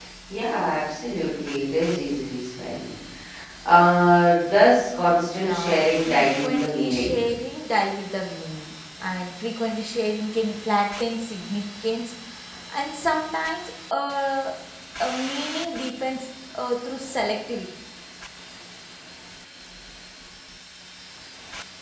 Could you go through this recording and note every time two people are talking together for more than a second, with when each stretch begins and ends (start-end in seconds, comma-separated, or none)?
5.4-7.2